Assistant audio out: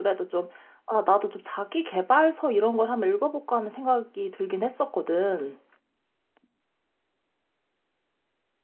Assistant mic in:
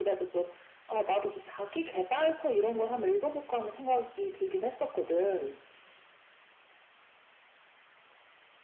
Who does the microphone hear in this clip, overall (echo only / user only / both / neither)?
echo only